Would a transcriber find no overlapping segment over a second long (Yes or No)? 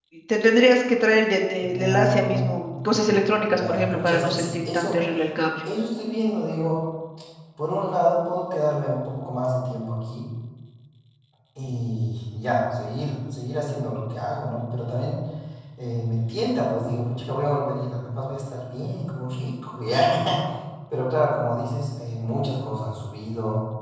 No